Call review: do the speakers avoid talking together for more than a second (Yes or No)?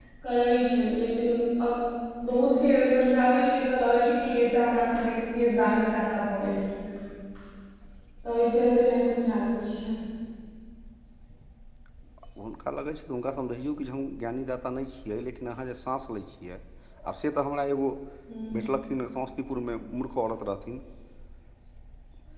Yes